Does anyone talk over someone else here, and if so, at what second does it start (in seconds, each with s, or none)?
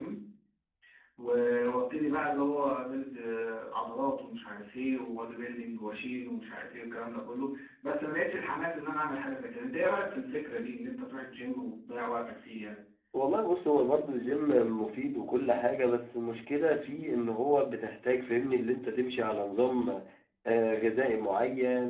none